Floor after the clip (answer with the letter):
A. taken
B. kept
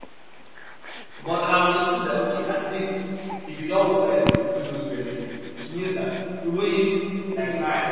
B